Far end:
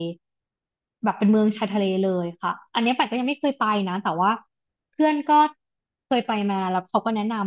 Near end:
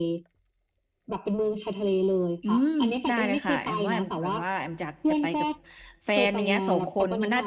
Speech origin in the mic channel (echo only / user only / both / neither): both